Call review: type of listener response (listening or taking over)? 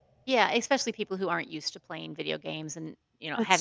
taking over